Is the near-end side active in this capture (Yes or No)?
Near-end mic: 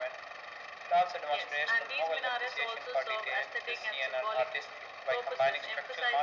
No